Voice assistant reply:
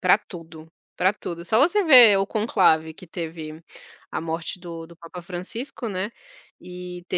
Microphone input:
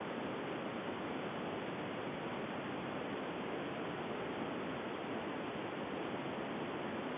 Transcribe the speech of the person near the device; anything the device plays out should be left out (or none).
none